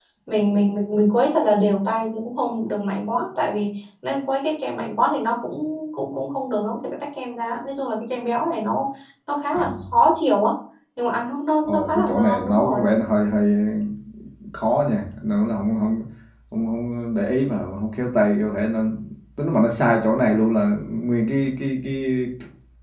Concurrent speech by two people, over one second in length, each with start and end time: 11.6-12.9

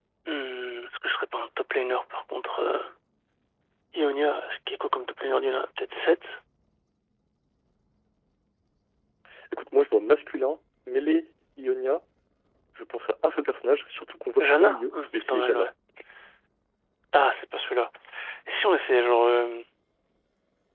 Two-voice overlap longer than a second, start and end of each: 14.4-15.7

